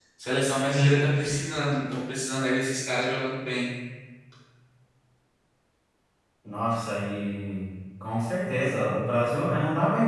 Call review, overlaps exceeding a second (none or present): none